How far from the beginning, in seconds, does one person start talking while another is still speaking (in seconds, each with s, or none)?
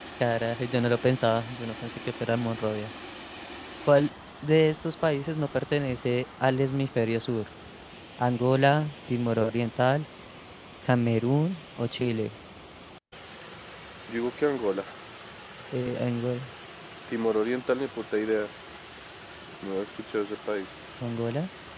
none